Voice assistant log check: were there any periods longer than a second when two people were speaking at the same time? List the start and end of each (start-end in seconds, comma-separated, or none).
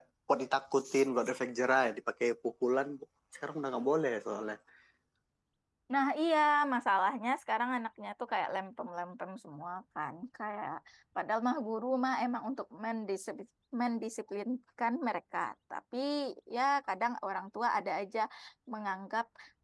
none